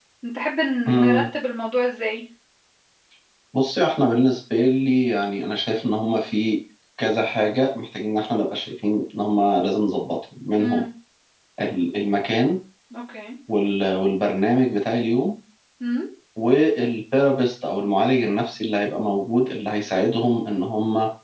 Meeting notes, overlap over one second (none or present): none